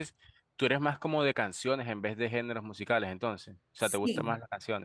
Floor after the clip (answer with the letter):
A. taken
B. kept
A